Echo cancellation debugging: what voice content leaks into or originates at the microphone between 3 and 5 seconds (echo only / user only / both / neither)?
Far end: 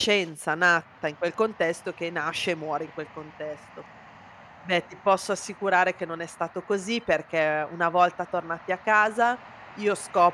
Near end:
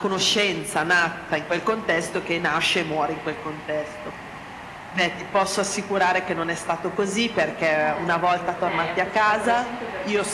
echo only